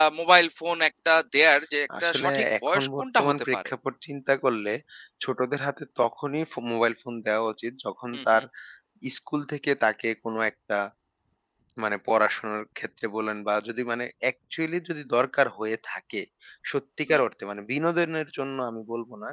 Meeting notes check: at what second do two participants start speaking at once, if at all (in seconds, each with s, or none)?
2.0 s